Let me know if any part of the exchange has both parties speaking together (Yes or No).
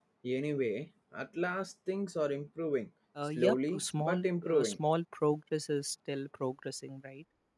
Yes